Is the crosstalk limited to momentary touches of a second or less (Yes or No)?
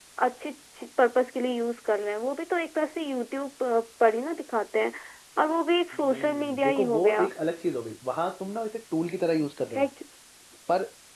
No